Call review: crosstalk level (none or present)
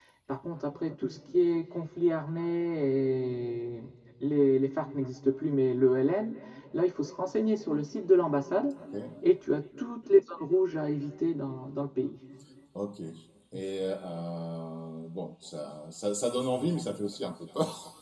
none